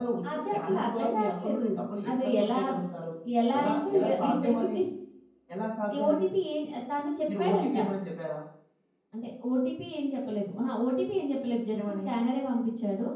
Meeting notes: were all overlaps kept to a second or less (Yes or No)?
No